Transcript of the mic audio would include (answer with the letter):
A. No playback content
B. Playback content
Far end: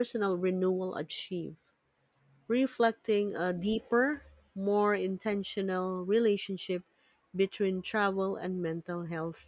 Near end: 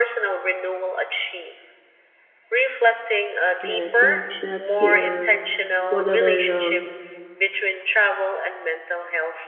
B